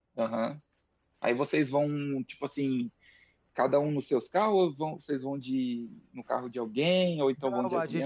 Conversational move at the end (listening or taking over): taking over